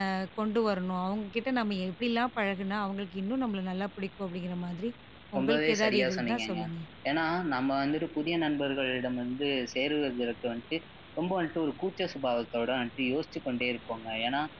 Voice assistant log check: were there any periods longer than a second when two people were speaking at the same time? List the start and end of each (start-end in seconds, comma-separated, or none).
5.4-6.6